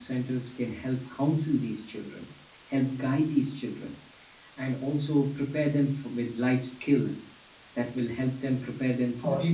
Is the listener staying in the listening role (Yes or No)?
No